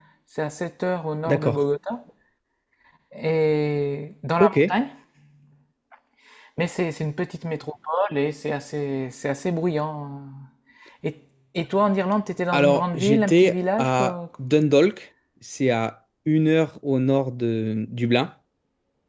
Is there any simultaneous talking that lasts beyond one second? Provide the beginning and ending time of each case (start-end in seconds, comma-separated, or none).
12.5-14.1